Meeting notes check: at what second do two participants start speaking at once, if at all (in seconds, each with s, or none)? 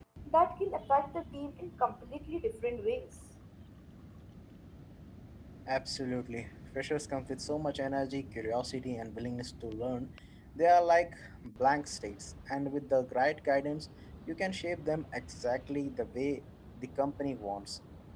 none